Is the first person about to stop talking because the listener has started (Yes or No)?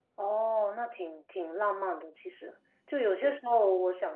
No